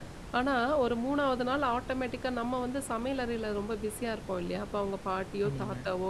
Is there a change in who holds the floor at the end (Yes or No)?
No